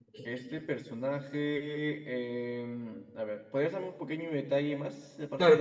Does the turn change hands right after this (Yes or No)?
Yes